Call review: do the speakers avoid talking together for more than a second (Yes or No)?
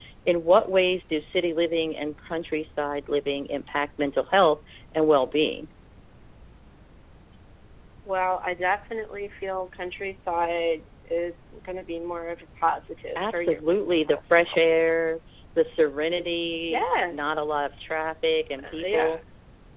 No